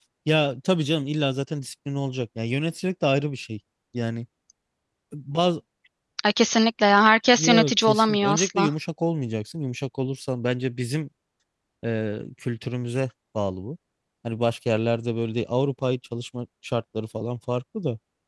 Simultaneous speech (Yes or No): Yes